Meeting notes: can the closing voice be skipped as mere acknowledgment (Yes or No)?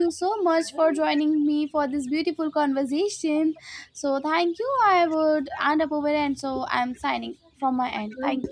No